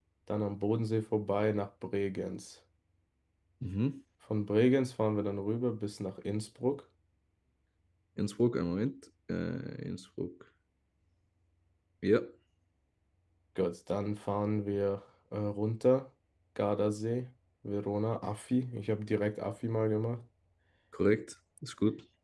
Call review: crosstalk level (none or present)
none